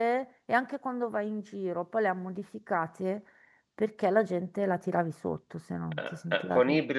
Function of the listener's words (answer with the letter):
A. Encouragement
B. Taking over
B